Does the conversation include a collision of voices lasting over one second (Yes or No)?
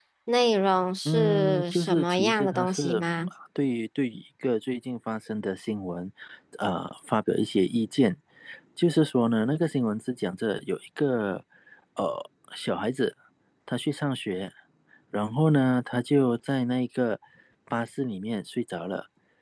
Yes